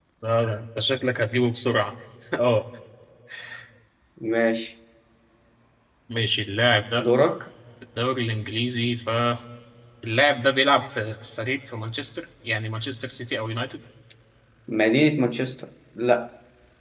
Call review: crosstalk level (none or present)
none